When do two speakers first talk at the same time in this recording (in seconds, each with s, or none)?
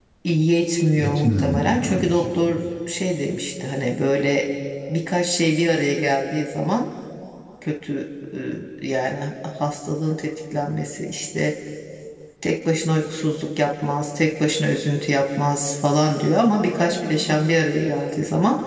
1.0 s